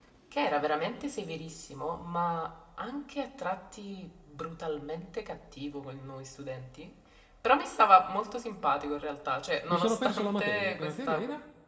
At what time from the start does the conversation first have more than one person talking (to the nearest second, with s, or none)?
10 s